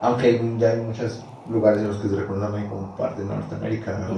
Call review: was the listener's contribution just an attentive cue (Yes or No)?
No